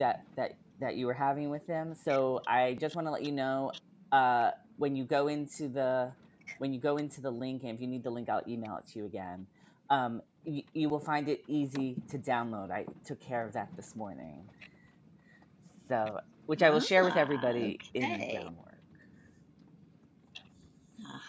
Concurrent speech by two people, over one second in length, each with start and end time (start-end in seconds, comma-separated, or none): 16.6-18.4